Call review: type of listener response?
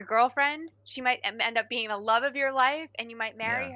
listening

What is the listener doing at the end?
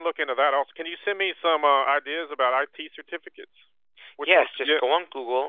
taking over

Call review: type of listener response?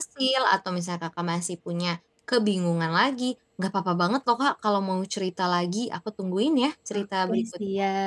taking over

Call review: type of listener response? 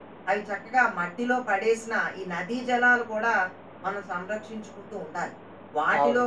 listening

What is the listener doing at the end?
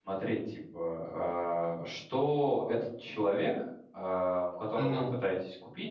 listening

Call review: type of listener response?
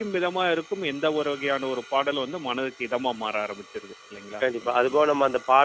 taking over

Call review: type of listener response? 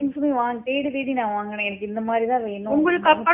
taking over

